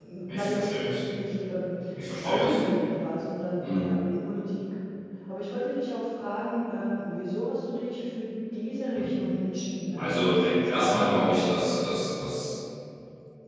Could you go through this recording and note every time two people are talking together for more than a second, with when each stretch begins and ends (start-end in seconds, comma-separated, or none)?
10.0-11.4